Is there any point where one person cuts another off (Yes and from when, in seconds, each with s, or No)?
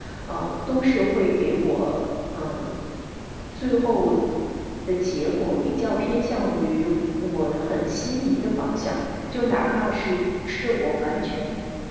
No